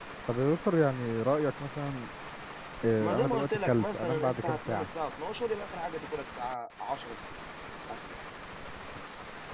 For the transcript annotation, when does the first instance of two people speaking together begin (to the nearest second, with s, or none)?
3 s